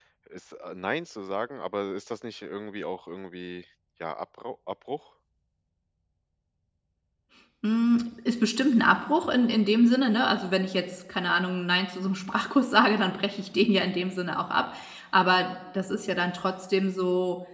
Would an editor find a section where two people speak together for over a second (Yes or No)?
No